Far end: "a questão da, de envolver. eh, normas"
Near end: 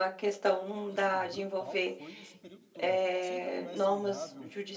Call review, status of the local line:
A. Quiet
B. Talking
B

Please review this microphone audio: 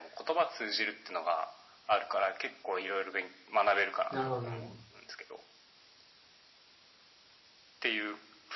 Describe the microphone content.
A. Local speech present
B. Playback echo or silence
A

